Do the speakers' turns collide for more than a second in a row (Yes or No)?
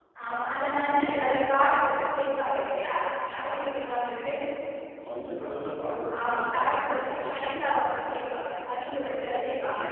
Yes